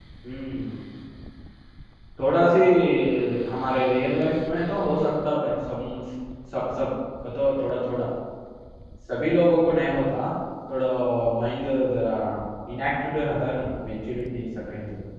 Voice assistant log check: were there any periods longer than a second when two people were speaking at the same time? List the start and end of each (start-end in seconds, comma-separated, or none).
none